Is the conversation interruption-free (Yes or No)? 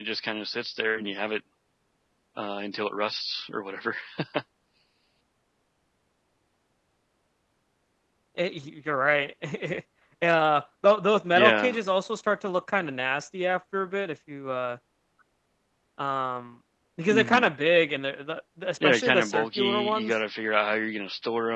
No